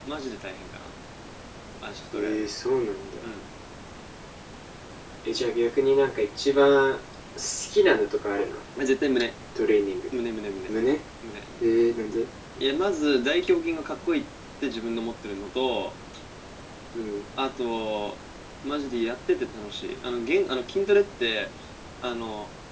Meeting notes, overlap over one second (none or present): none